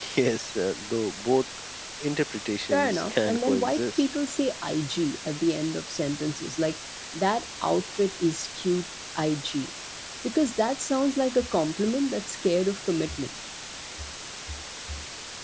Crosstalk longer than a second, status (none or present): present